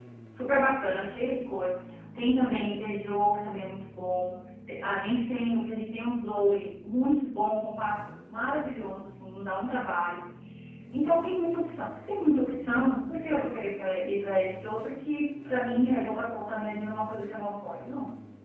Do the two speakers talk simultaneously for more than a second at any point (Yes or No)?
No